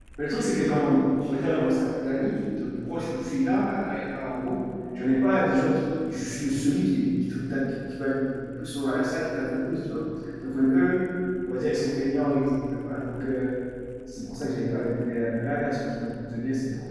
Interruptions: present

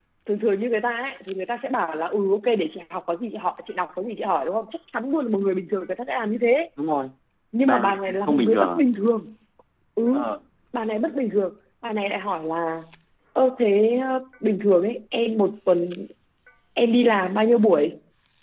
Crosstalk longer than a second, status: present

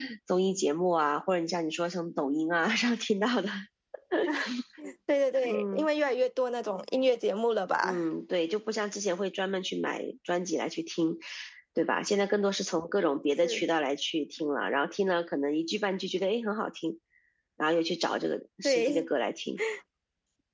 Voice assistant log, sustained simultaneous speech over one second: none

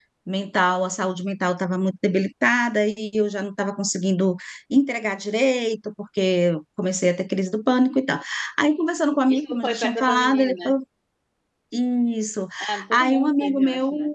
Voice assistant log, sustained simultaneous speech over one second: present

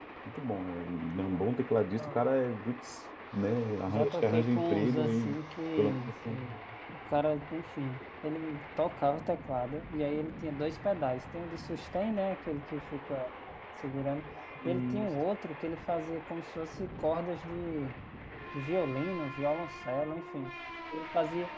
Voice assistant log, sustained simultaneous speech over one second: present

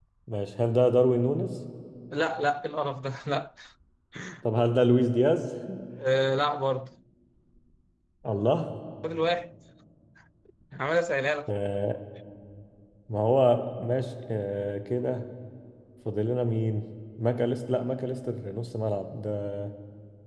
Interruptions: none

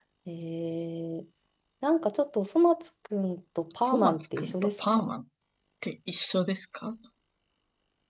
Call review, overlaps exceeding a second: present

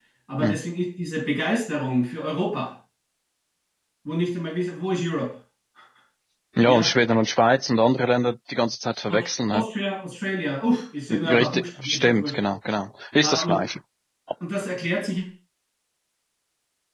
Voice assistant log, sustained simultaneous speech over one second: present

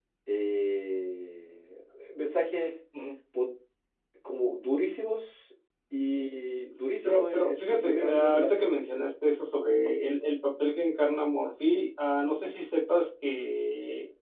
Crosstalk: present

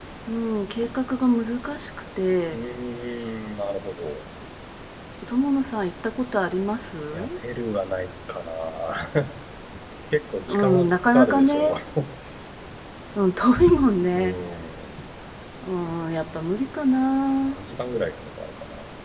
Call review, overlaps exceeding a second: present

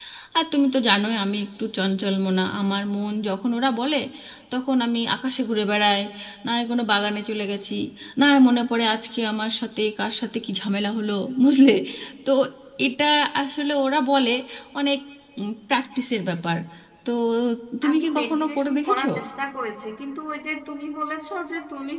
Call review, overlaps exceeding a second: present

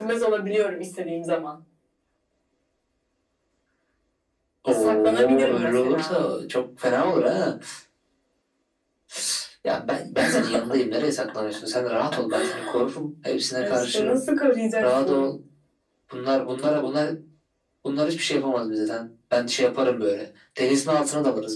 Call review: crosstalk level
present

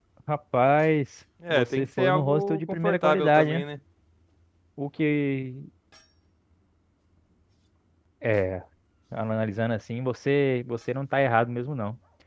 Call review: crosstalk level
present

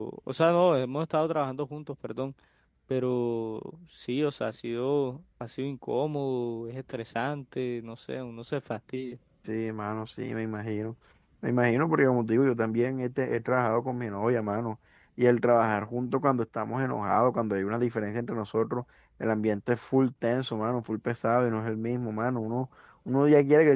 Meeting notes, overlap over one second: none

